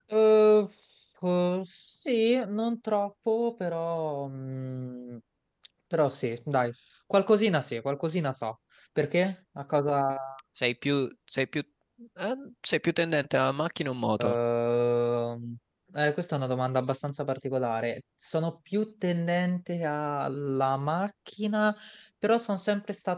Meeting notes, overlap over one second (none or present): none